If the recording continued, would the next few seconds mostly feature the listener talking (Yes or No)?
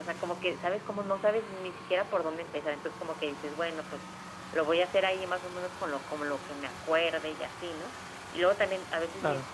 No